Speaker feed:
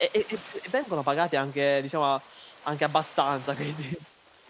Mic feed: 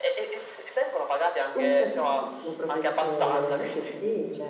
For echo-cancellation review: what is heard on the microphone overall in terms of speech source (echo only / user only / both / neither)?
both